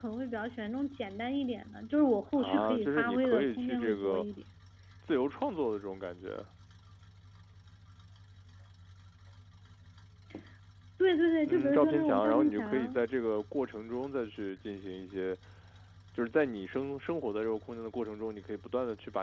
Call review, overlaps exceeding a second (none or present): present